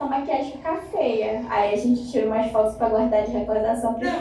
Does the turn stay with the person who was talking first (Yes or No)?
No